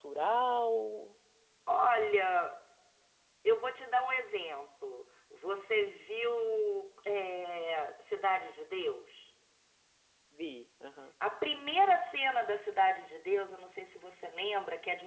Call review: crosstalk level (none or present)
none